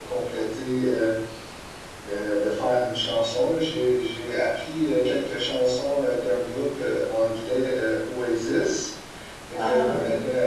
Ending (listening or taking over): listening